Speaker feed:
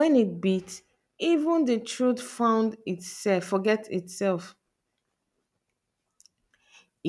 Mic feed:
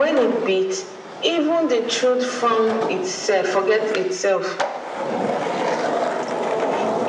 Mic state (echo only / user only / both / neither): echo only